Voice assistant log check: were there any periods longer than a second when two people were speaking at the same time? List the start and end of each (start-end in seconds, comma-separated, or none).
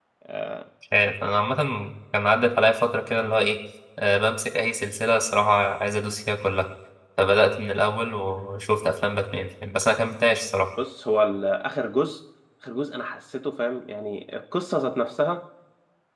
none